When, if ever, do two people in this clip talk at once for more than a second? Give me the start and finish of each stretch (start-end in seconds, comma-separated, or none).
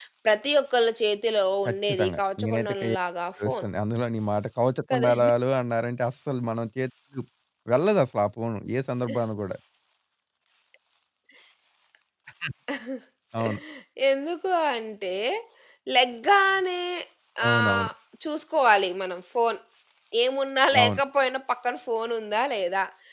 1.7-2.9